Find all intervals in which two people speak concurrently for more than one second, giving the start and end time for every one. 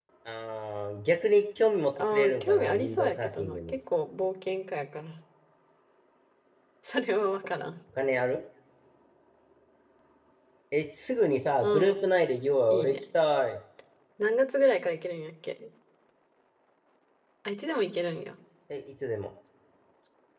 2.1-3.8

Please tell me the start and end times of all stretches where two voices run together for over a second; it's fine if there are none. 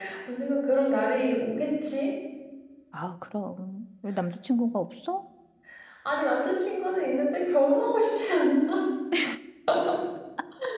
none

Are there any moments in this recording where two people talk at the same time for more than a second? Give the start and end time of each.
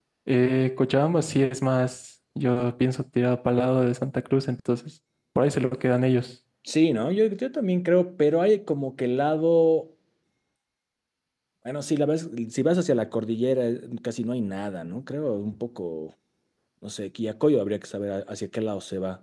none

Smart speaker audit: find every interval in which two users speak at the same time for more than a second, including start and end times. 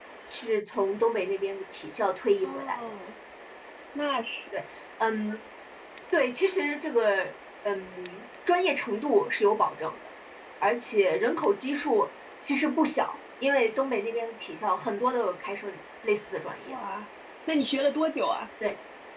none

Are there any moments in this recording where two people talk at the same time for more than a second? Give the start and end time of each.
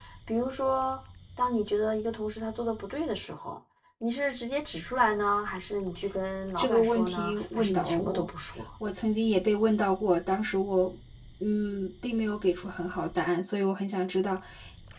6.6-8.3

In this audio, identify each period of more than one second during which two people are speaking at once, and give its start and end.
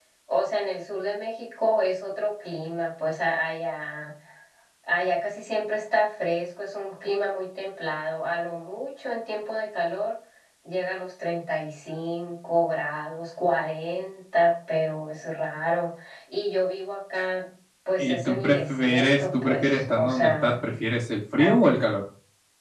18.0-20.5

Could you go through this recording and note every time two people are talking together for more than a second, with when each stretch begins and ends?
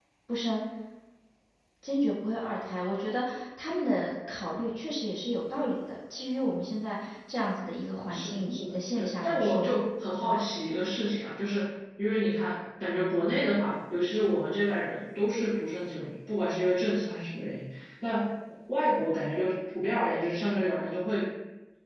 8.1-9.8

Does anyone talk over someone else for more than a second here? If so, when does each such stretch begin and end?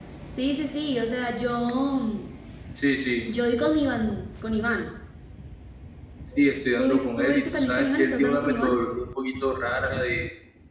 6.8-8.7

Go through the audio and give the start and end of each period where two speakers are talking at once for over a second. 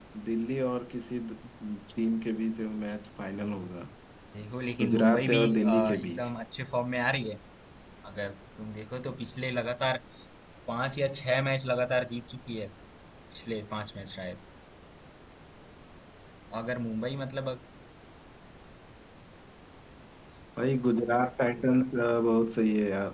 4.8-6.3

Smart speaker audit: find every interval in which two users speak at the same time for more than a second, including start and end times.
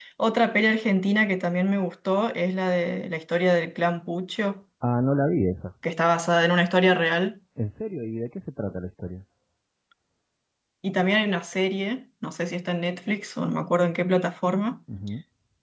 none

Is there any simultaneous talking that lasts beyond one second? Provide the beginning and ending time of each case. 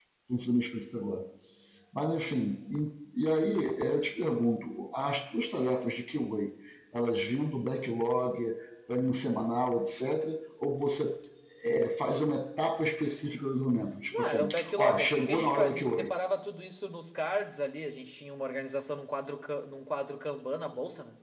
14.1-16.1

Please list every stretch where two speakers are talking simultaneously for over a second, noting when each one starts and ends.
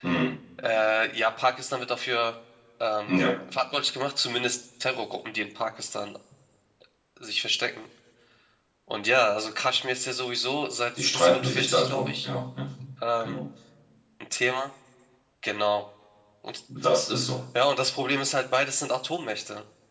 11.0-12.3

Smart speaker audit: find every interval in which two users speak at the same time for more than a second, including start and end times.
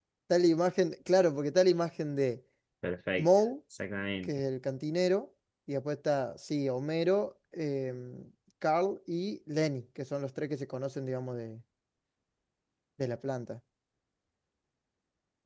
none

